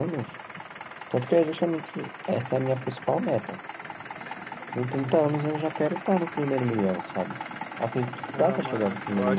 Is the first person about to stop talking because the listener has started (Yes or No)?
Yes